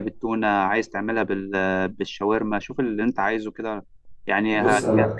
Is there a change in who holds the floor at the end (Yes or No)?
No